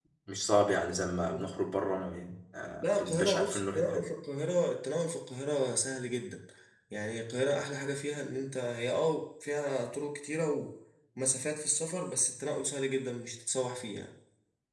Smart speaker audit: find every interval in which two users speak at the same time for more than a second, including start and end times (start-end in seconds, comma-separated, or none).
2.8-4.0